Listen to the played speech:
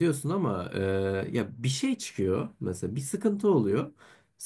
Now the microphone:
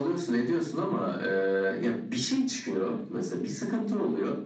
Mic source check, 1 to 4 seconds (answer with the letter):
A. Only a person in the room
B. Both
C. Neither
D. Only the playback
D